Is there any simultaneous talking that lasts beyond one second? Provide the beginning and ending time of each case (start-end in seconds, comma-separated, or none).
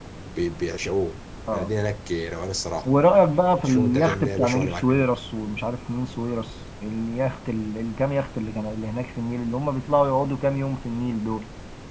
3.6-5.1